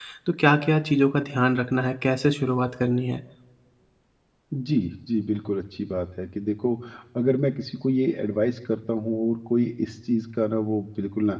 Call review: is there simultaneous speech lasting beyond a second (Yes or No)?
No